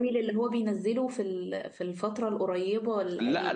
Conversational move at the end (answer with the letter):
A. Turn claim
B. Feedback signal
A